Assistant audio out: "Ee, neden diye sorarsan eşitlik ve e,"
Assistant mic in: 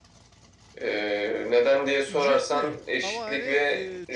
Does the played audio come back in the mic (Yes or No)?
Yes